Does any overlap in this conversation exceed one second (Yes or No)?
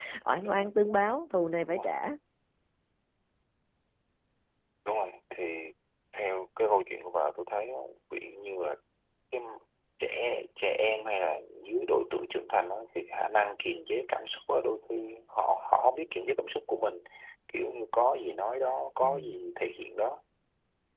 No